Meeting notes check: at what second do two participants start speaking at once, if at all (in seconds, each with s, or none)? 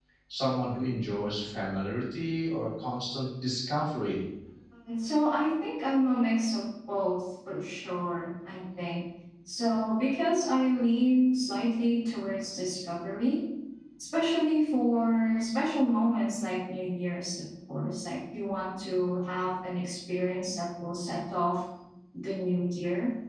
none